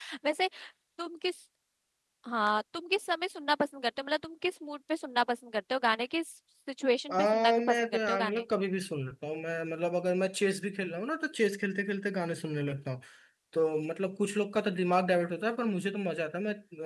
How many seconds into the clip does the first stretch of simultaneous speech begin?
7.1 s

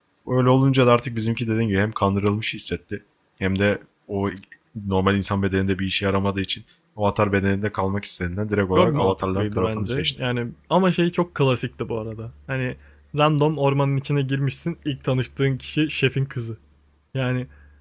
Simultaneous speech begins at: 8.8 s

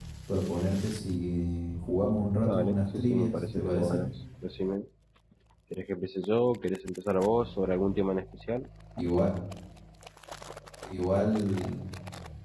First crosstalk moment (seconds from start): 2.4 s

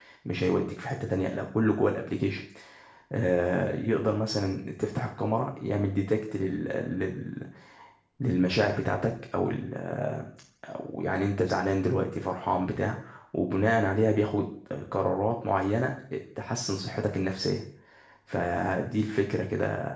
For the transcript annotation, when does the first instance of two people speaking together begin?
none

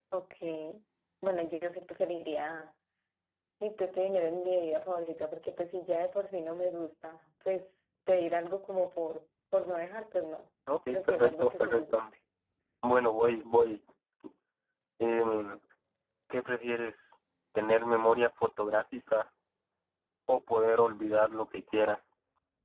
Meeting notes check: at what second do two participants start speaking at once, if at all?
10.7 s

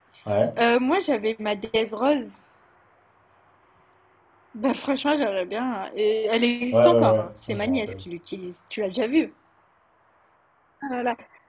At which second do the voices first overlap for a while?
6.7 s

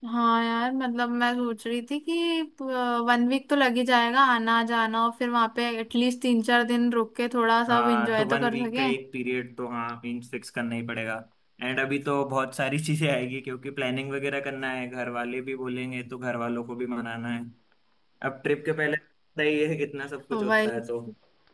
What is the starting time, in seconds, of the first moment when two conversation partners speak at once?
7.7 s

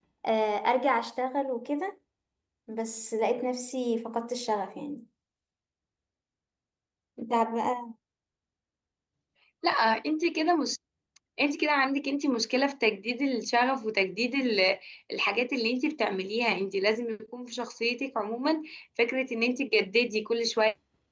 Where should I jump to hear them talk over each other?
none

